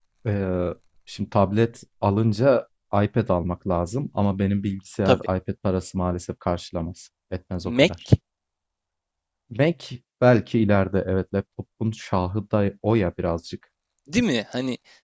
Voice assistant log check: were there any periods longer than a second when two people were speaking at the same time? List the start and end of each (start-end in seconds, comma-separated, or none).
none